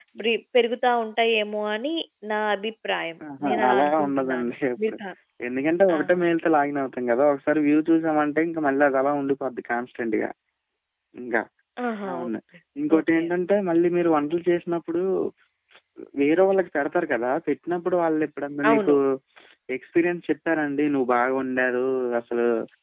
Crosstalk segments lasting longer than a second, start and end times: 3.4-4.9

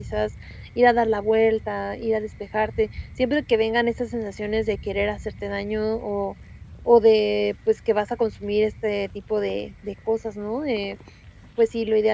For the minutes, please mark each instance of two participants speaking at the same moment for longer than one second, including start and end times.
none

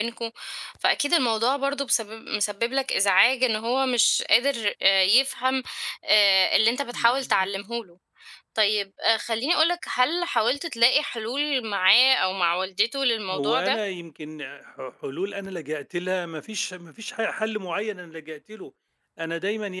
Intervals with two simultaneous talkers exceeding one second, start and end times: none

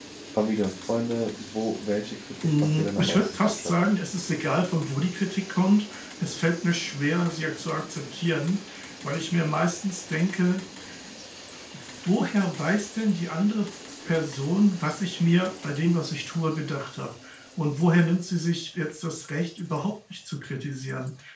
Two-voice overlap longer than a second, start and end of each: 2.4-3.7

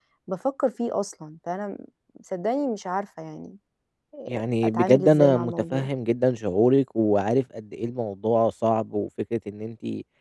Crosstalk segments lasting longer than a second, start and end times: 4.3-5.9

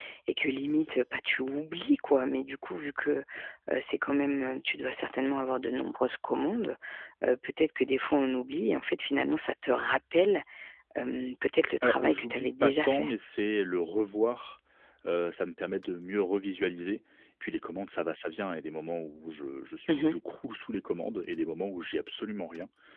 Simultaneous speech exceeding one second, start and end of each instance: 11.8-13.1

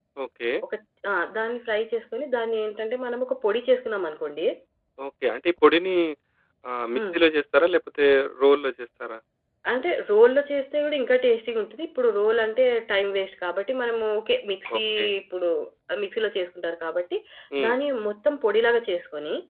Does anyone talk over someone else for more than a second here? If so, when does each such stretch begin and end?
none

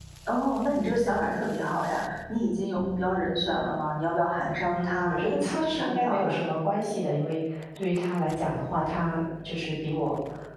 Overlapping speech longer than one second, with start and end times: 4.7-6.5

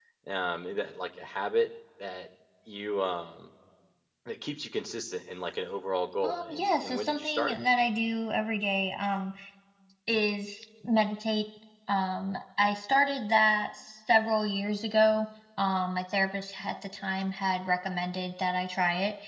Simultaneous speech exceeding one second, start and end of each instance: 6.2-7.6

